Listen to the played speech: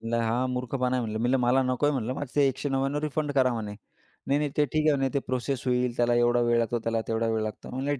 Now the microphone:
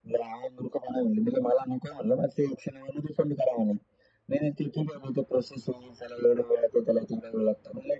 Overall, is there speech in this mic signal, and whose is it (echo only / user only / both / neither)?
echo only